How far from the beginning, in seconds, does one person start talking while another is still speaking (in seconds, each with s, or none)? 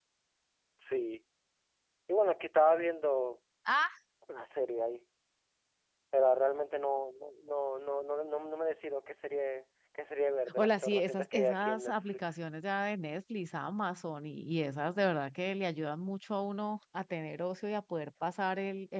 10.5 s